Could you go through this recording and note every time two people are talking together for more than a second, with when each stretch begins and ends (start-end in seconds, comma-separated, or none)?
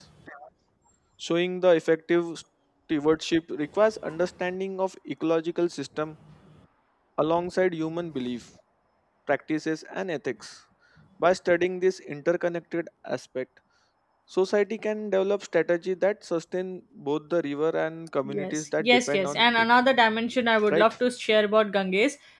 18.2-19.6